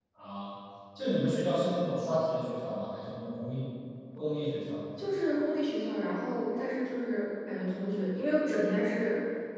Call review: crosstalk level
none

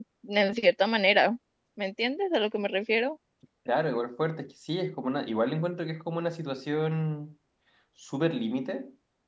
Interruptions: none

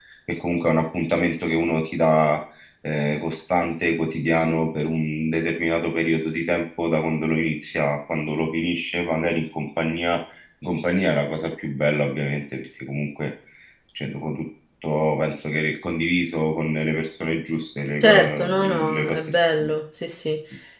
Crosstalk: present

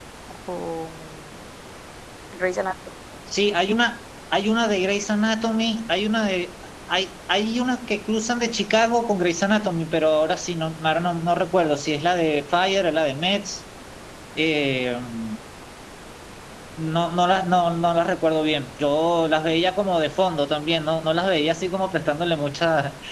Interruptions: none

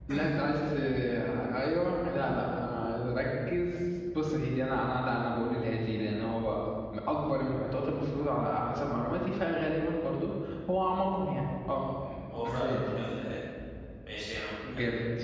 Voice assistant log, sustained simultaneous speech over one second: none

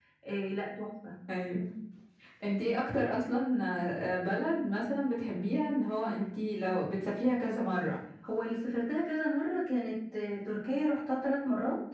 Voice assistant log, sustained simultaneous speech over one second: none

